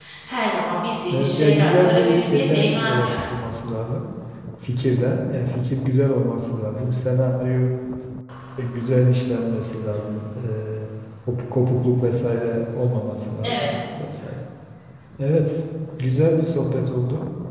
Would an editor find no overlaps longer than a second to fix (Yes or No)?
No